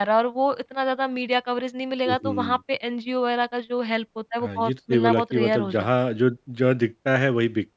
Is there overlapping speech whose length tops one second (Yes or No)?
Yes